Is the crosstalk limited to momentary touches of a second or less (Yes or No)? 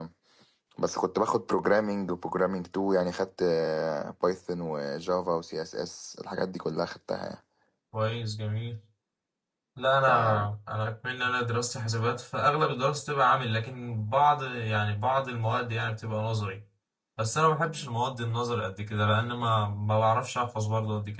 Yes